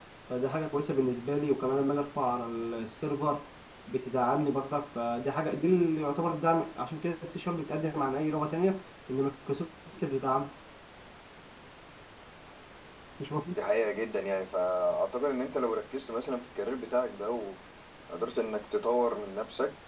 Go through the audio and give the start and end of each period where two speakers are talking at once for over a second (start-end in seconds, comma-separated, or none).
none